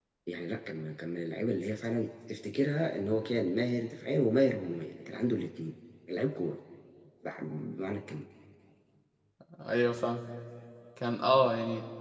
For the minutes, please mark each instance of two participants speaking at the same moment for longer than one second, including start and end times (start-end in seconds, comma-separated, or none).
none